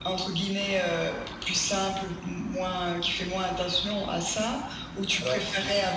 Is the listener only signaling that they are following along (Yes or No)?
No